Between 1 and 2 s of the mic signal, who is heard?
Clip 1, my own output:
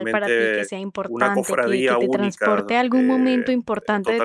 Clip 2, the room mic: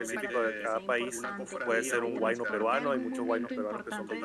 both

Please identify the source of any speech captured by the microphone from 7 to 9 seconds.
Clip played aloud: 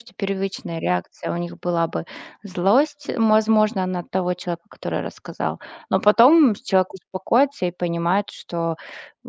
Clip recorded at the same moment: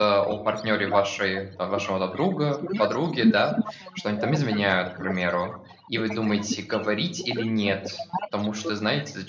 both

